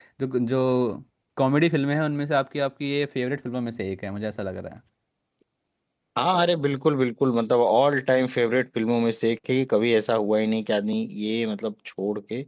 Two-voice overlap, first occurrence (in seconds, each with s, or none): none